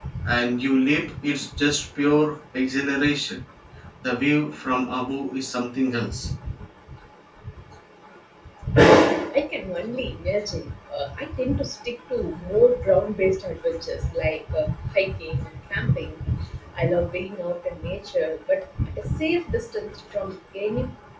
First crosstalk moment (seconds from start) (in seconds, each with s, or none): none